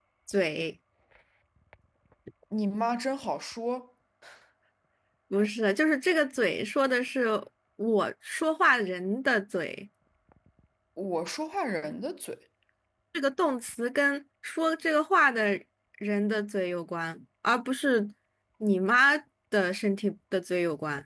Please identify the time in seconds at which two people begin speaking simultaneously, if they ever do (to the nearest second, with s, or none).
none